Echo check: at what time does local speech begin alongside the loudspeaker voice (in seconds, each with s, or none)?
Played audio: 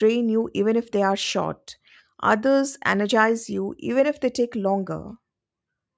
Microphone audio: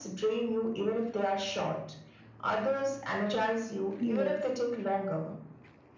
4.0 s